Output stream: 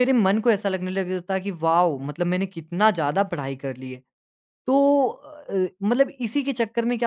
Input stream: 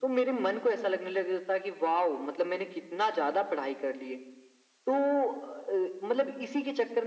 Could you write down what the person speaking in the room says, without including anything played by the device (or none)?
none